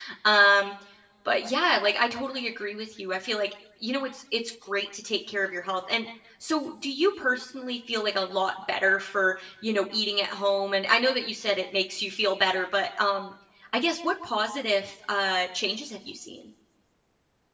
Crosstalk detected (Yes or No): No